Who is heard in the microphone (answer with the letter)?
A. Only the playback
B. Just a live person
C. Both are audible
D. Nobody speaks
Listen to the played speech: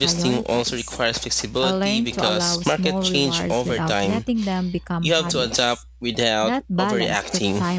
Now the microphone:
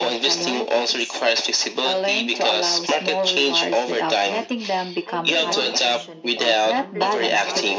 C